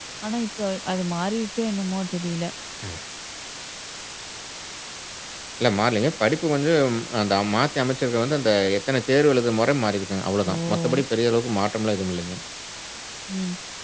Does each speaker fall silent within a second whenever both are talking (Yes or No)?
Yes